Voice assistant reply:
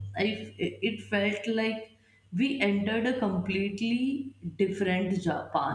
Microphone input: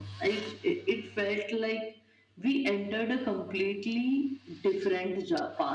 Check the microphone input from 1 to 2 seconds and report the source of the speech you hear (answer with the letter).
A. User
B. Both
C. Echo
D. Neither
C